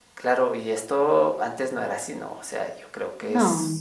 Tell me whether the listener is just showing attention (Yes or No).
Yes